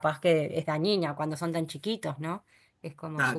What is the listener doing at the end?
taking over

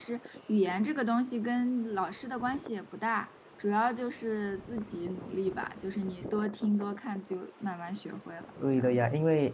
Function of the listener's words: taking over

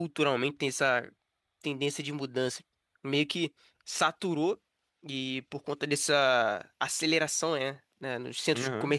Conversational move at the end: listening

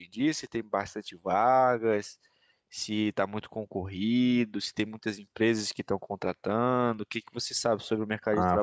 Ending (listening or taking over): taking over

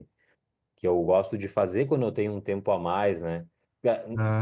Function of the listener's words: listening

